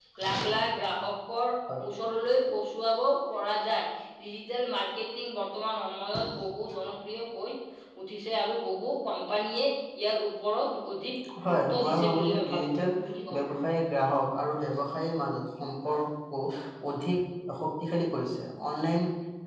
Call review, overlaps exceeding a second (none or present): present